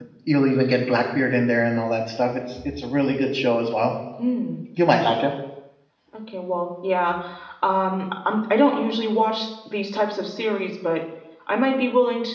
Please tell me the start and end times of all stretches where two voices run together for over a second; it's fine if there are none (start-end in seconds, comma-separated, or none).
none